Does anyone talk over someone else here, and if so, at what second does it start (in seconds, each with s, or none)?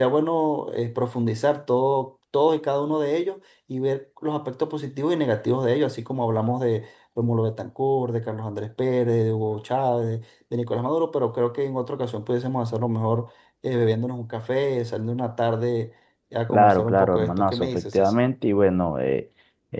16.5 s